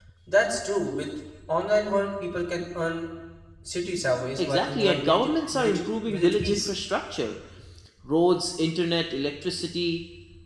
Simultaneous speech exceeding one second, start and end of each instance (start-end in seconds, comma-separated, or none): 4.4-6.7